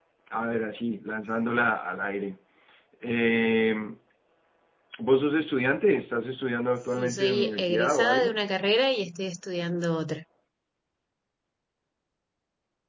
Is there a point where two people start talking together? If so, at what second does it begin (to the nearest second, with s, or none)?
7 s